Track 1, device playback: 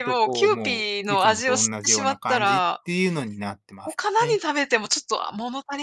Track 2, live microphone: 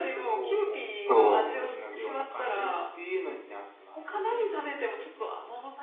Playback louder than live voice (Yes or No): No